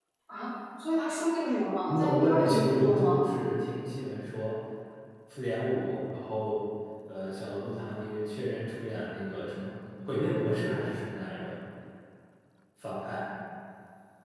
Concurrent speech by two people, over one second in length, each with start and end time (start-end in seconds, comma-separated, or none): 1.9-3.2